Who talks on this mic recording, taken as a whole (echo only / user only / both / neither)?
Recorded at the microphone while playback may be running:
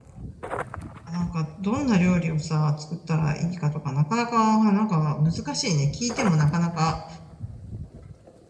user only